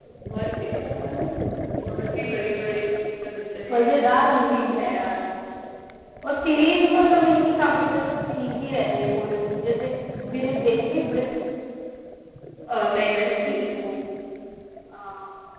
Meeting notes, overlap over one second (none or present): none